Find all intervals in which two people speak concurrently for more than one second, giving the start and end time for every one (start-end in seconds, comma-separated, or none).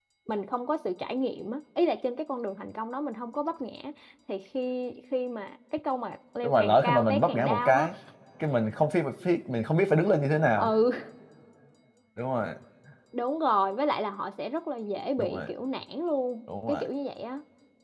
6.4-7.9